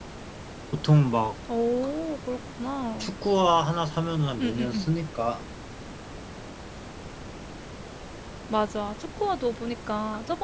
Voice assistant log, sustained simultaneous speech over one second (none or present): none